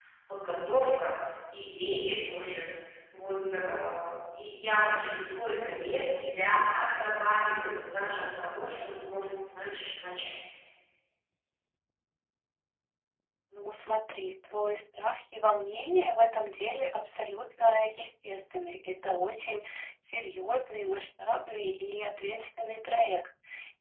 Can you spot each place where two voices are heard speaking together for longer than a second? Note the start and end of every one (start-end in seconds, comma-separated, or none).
none